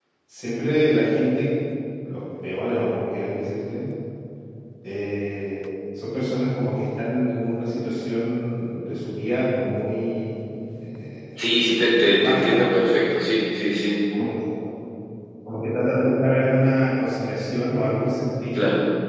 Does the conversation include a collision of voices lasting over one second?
No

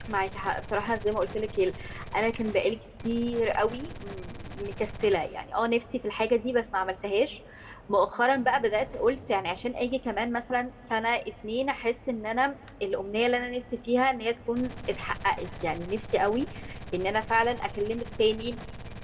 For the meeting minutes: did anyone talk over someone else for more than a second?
No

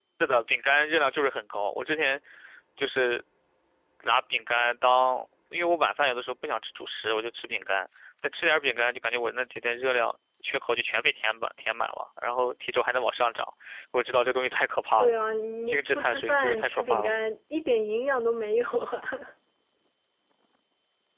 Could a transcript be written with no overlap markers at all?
No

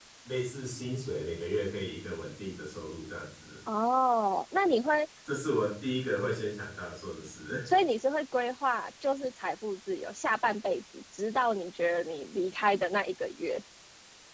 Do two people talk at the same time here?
No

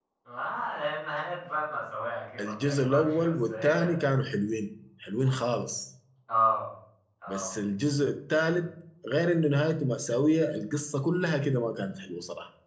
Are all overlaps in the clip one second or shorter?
No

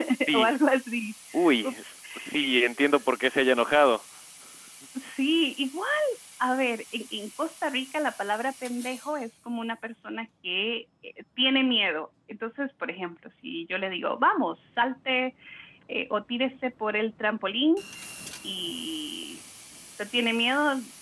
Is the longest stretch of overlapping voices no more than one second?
Yes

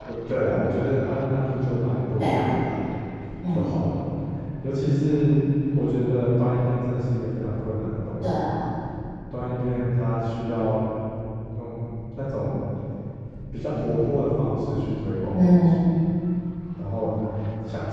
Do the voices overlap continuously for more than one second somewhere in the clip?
No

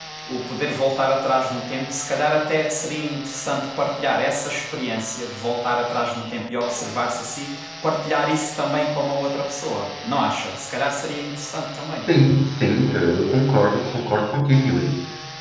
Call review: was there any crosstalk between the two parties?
No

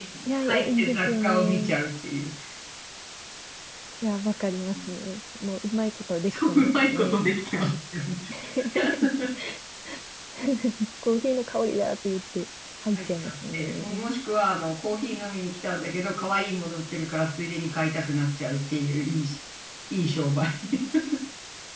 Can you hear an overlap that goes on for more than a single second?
Yes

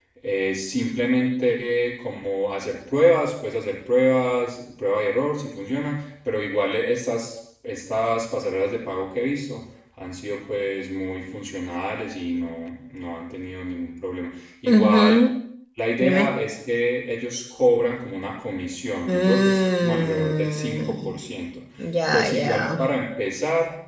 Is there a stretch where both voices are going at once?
Yes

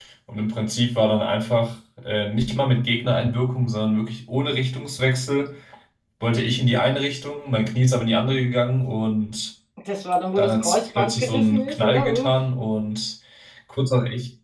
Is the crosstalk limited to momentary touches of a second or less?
No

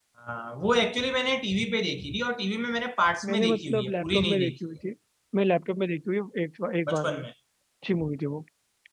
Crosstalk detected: Yes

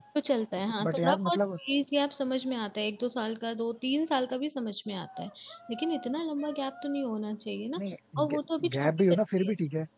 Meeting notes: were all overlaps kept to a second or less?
No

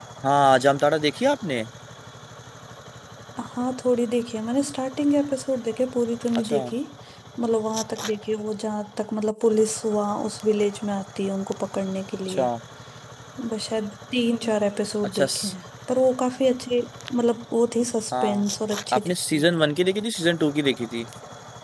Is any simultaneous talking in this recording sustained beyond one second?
No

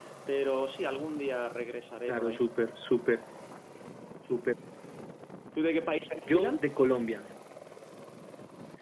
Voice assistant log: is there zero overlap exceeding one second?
Yes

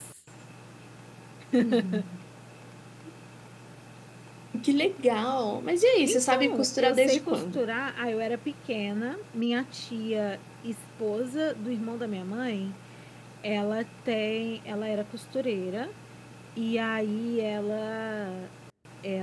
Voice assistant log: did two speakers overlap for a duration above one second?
Yes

